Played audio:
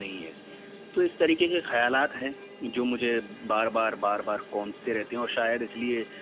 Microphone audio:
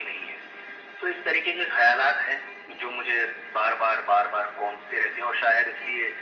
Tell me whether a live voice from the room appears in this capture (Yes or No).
No